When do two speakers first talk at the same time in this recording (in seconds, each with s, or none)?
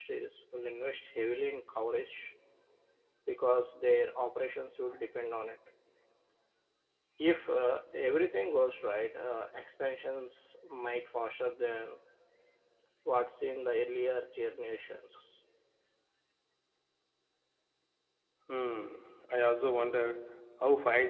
none